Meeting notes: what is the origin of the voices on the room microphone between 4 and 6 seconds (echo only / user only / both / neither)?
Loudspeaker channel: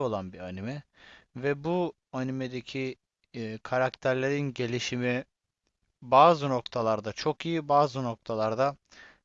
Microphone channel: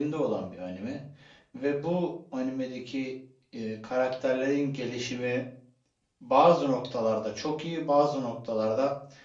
echo only